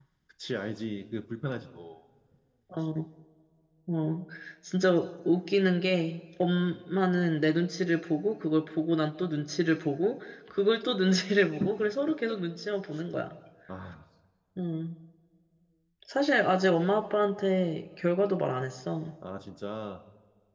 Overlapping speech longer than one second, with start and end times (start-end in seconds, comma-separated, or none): none